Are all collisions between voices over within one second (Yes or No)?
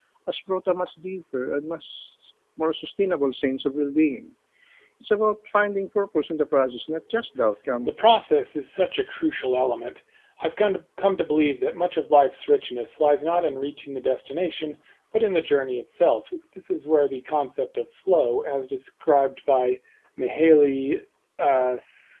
Yes